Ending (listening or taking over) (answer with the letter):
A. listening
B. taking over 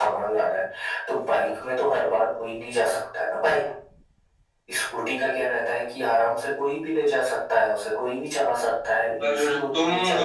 B